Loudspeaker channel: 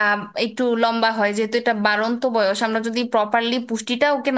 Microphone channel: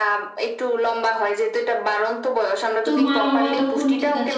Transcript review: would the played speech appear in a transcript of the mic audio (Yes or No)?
Yes